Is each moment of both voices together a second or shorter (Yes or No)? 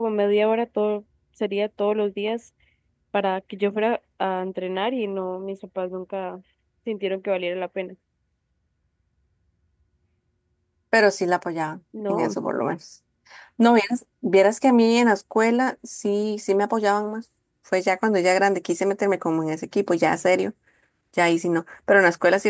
Yes